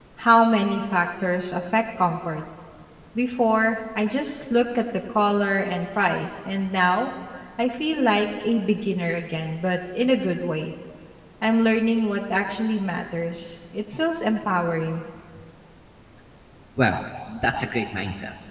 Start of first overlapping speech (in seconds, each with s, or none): none